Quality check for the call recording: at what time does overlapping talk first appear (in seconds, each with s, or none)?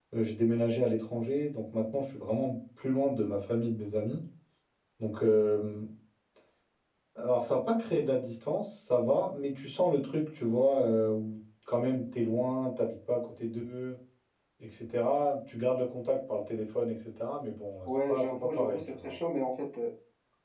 17.9 s